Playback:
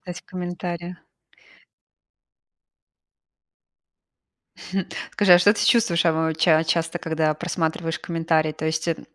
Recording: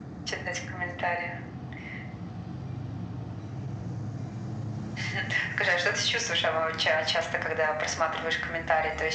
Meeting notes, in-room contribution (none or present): none